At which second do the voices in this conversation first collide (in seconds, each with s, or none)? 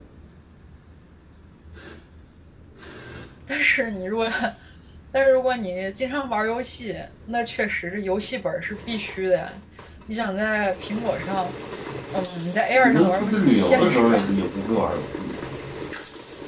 12.7 s